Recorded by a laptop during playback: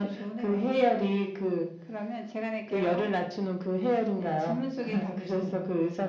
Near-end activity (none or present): none